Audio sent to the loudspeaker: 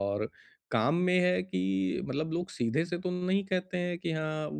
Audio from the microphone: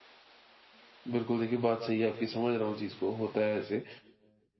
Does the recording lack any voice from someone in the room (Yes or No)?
No